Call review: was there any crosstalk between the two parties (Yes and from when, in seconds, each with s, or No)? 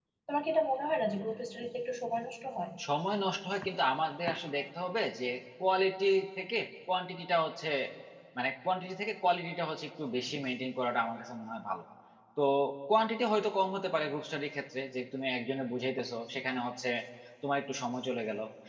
No